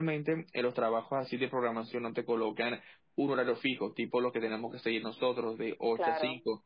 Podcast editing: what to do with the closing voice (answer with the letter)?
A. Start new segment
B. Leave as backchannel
B